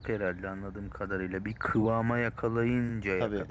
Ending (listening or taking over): taking over